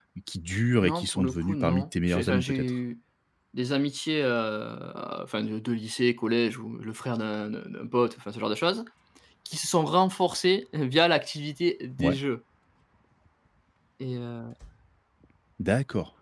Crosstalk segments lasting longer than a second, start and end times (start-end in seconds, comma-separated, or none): 0.8-2.7